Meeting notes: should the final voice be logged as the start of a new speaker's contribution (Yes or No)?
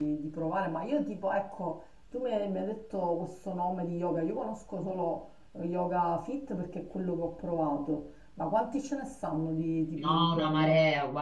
Yes